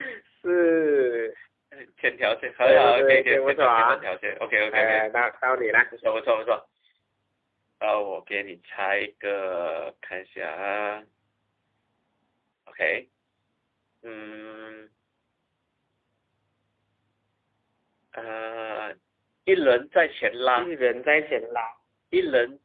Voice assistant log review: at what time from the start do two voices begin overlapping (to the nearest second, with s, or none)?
3 s